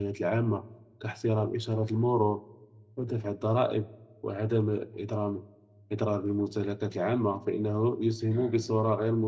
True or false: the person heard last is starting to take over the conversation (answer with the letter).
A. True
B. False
B